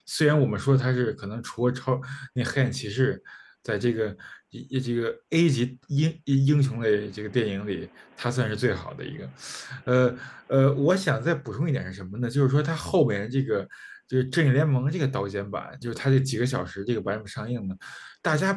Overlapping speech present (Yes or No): No